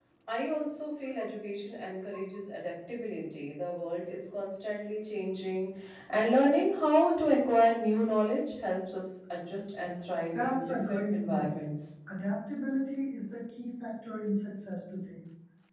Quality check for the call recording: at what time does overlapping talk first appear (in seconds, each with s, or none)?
10.3 s